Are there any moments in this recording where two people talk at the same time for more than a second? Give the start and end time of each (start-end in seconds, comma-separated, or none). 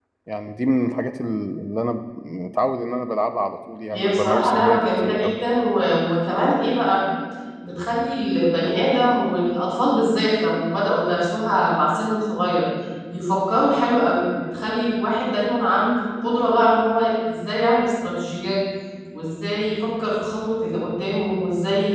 3.9-5.3